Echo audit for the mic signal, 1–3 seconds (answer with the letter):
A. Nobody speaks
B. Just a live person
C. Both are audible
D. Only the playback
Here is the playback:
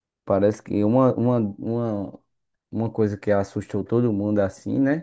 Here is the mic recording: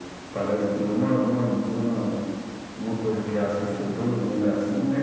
D